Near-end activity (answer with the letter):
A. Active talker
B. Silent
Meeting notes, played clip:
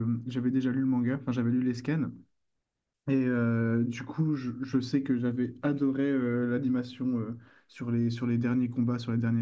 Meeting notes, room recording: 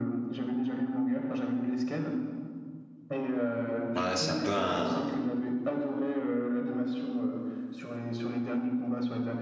A